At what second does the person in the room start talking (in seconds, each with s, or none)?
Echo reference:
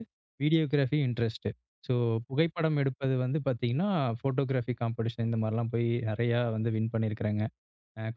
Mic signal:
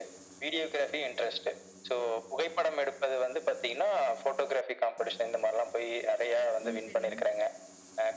6.6 s